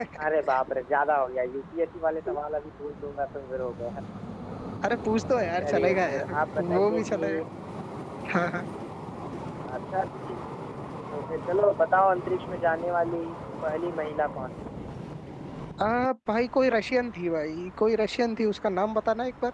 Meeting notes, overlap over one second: present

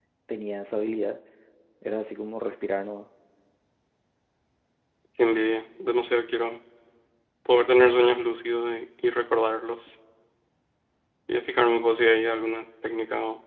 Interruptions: none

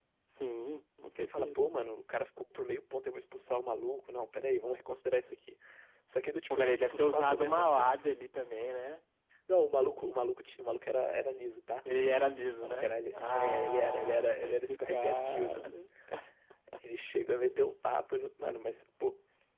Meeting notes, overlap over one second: present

